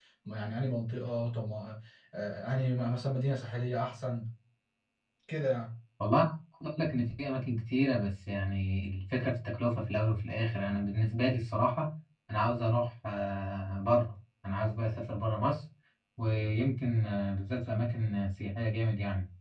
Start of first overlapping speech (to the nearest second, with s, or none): none